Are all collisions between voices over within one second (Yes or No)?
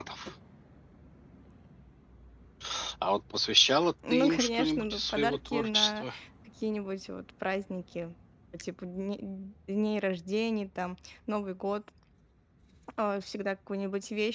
No